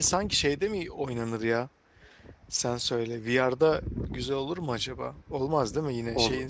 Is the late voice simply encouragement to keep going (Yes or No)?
No